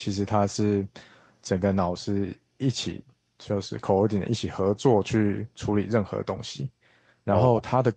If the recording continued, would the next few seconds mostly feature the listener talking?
No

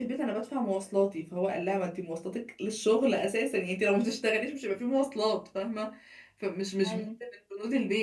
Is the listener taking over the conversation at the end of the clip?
No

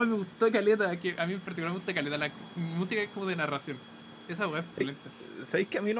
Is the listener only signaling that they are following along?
No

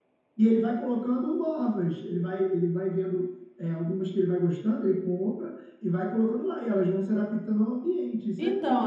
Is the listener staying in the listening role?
No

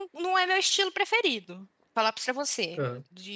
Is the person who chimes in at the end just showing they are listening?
Yes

